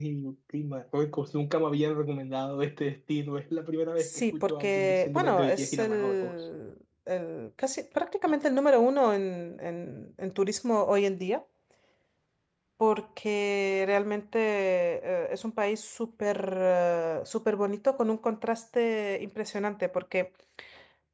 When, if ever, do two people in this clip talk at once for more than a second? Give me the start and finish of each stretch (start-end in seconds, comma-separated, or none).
4.0-6.3